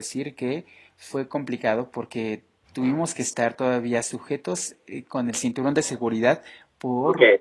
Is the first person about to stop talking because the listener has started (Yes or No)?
No